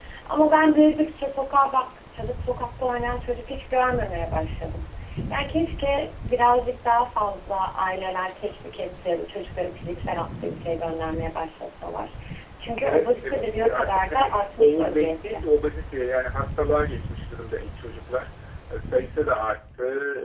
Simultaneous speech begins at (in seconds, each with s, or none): 12.8 s